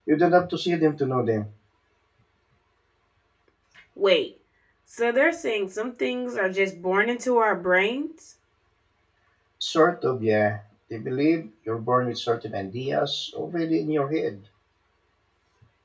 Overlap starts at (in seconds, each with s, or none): none